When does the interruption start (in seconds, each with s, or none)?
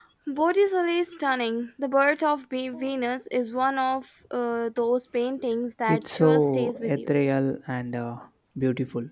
5.9 s